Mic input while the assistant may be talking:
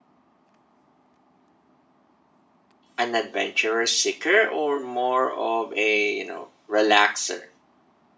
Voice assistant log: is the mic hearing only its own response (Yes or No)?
No